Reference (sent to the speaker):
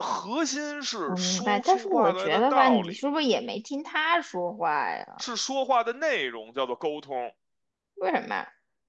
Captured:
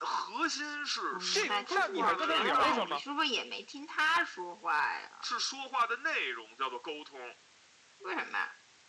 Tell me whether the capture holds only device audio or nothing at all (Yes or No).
No